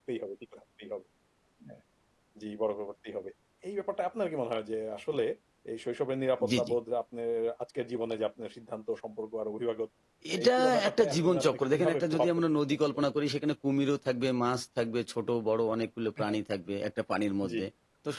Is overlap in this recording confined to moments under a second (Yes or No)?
No